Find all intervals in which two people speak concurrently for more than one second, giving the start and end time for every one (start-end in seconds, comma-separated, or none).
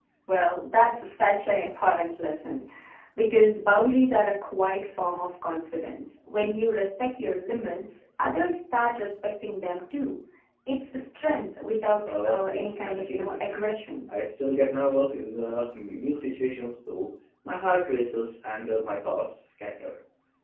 12.2-13.6